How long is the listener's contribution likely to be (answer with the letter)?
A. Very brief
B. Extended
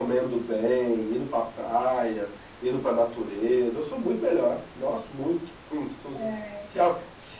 A